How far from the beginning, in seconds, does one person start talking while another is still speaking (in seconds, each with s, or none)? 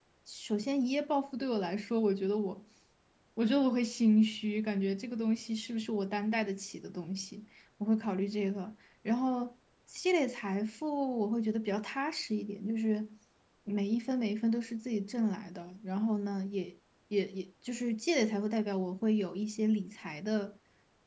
none